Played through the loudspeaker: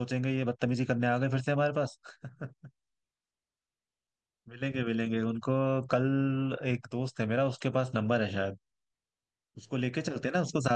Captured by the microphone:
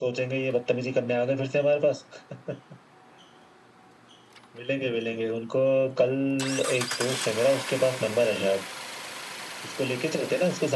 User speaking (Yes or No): No